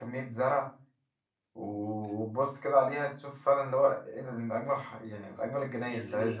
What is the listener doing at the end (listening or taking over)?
taking over